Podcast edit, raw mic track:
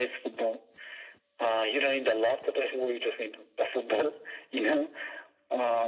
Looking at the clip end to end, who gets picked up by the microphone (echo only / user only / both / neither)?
echo only